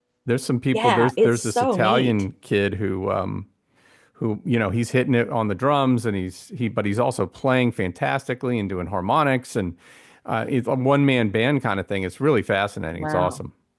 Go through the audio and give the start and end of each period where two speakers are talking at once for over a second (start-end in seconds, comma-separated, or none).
0.7-2.1